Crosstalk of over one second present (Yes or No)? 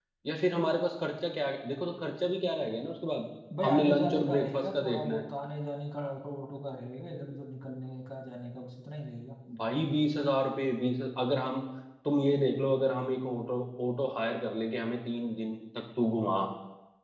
Yes